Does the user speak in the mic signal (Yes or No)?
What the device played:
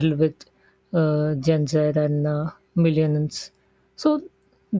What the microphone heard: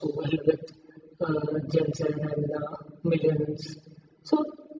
No